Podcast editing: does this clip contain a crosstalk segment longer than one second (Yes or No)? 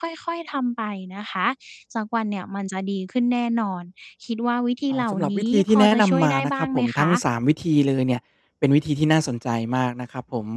Yes